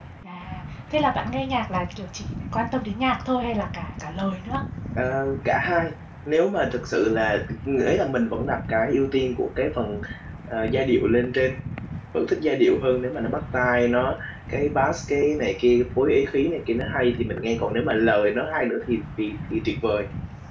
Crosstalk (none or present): none